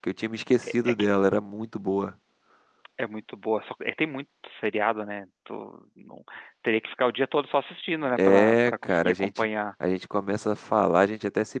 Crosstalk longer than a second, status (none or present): present